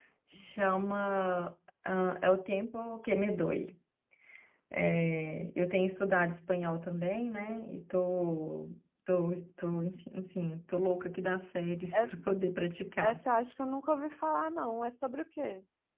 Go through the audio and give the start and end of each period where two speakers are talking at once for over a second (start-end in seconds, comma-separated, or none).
none